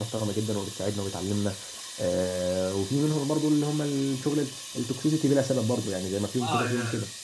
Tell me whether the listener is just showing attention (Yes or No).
No